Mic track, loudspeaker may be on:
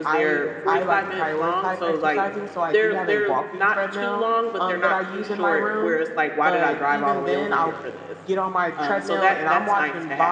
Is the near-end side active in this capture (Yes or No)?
Yes